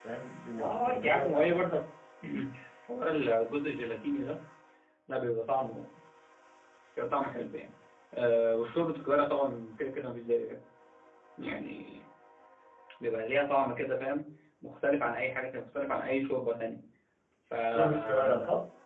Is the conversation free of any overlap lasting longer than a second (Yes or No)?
No